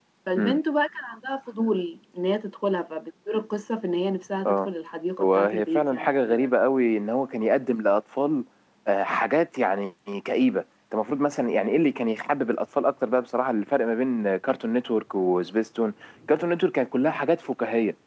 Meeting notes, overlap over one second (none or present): present